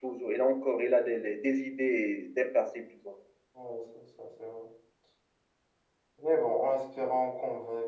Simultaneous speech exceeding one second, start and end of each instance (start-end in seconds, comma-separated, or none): none